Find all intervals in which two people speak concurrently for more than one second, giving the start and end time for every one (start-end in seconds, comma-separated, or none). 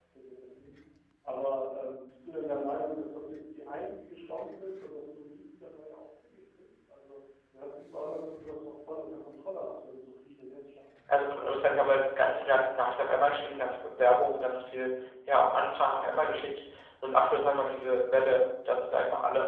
none